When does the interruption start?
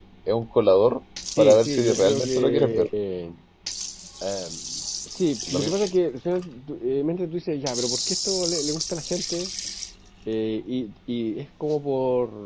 1.4 s

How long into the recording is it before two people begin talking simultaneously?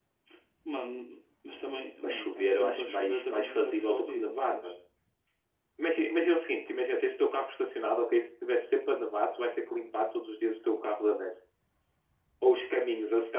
2.0 s

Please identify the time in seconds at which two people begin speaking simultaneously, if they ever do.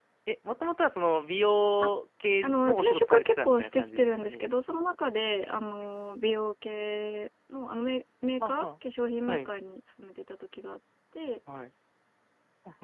2.4 s

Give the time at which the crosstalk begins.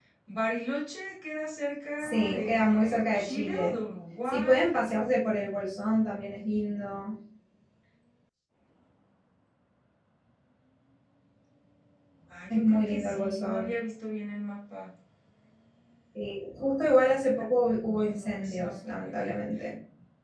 2.0 s

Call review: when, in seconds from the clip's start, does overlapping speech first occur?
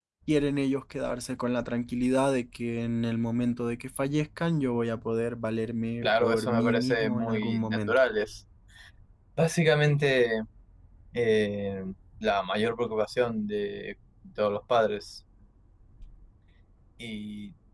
6.0 s

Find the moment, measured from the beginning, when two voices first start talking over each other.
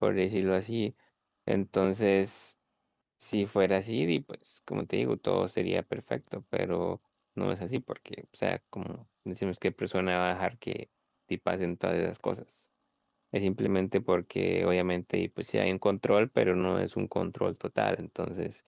none

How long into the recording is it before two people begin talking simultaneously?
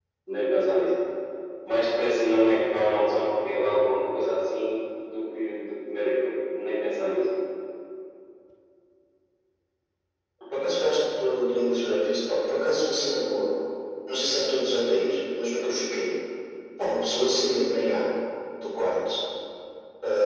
none

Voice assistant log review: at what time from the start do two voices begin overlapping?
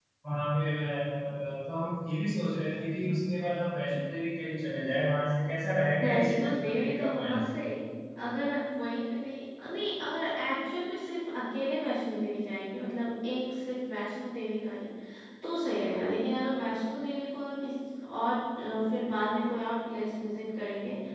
6.0 s

